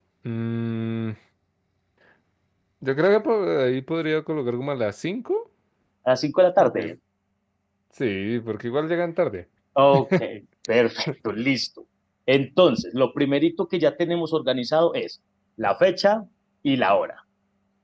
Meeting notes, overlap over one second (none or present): none